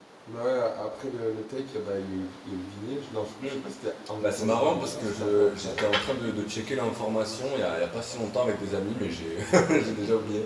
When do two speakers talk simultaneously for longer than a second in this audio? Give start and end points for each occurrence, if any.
4.2-5.8

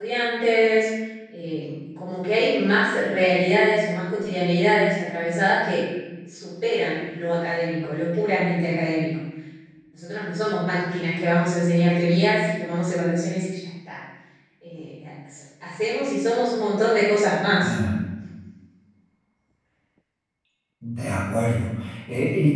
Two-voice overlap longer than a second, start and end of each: none

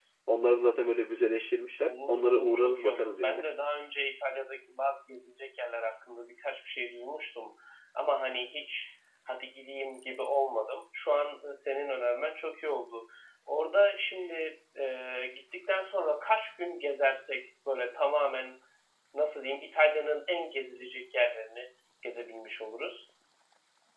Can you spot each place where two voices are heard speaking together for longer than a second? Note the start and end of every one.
1.8-3.4

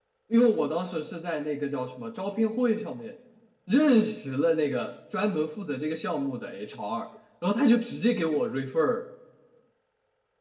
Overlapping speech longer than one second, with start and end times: none

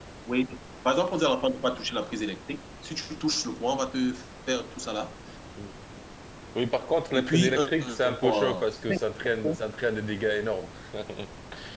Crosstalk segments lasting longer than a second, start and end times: 7.1-8.6

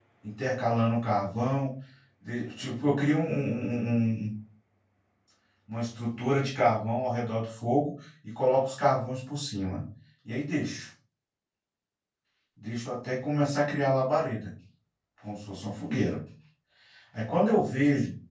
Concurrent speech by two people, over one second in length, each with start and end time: none

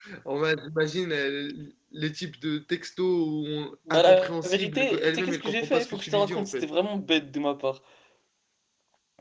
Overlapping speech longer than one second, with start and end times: 3.9-6.7

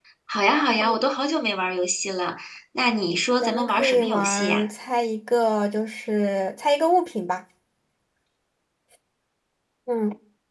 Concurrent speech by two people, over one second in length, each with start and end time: 3.4-4.6

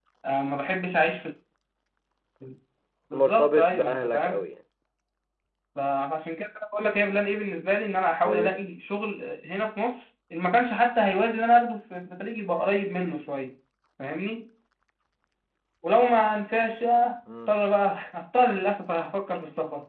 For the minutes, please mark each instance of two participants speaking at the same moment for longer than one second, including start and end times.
3.1-4.4

